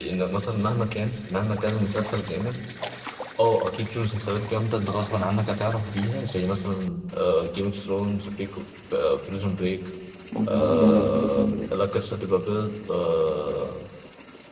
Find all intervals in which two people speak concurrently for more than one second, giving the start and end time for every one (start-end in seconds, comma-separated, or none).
10.5-11.7